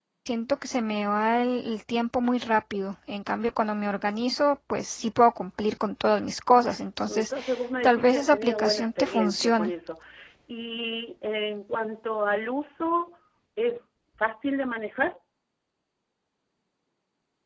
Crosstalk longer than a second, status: present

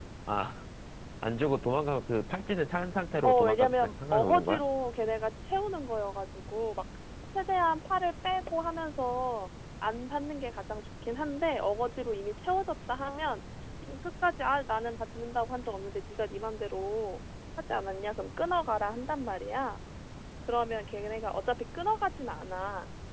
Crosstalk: present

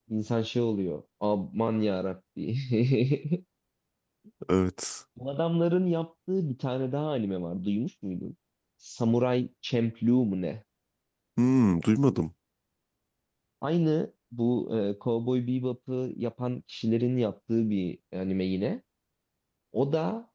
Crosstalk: none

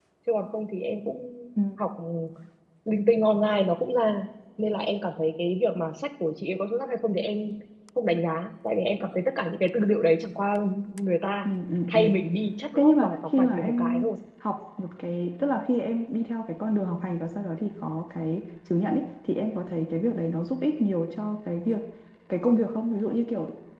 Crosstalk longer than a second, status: present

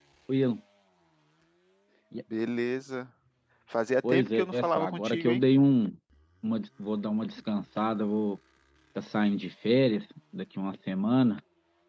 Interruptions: present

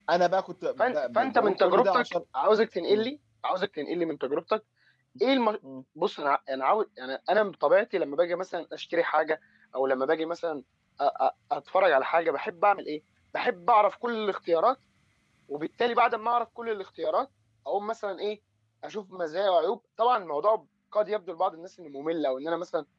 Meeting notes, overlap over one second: present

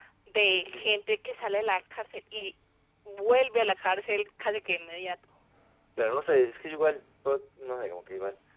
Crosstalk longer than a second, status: none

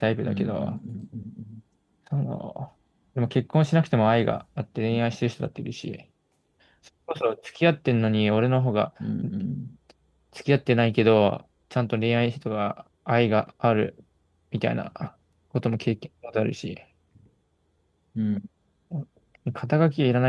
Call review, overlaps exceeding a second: none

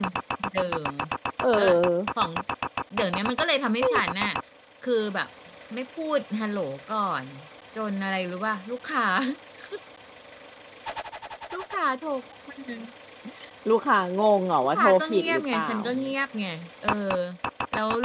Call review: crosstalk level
present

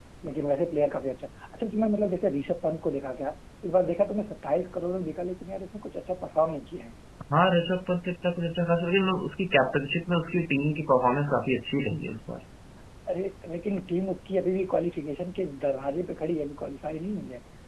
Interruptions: none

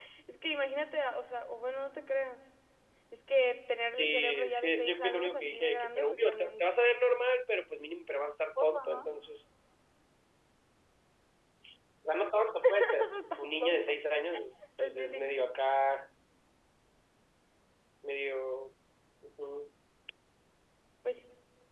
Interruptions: present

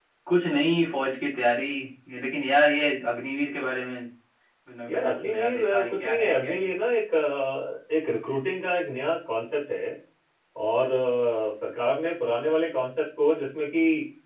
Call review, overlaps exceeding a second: present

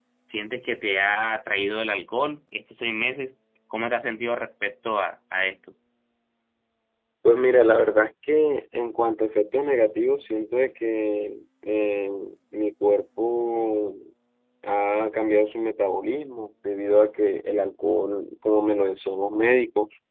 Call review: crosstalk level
none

